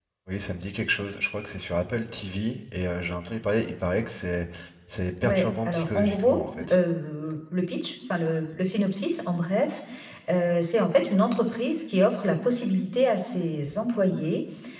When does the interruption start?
5.2 s

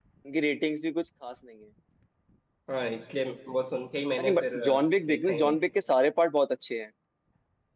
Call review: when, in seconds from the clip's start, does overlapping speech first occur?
4.2 s

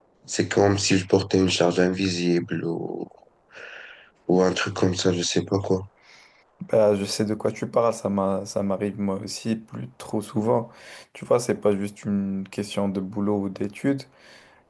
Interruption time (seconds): none

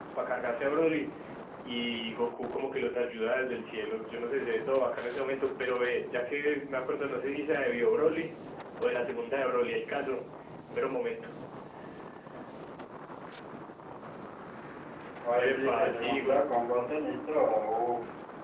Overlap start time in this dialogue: 15.4 s

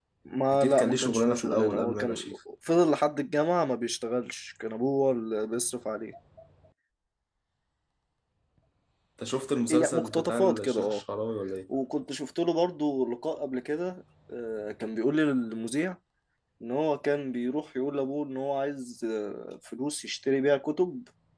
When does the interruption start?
0.5 s

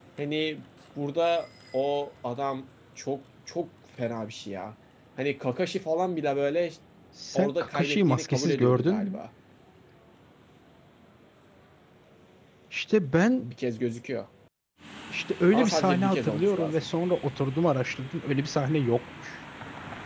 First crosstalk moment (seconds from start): 7.3 s

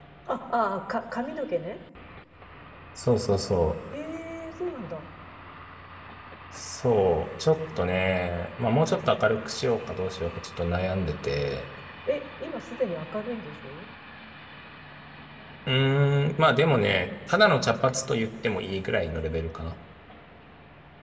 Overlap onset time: none

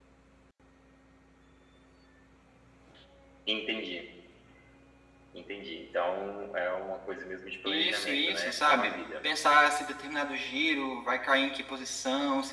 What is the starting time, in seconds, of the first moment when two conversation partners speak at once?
7.7 s

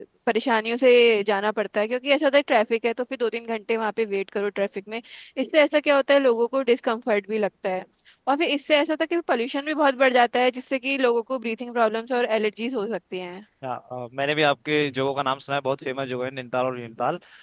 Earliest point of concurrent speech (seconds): none

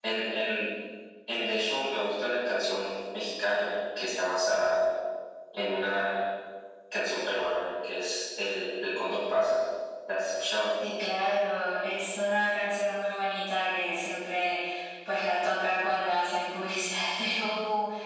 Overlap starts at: none

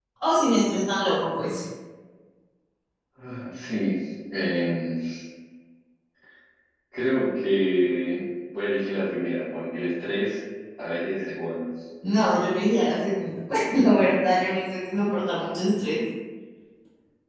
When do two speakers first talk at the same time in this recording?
none

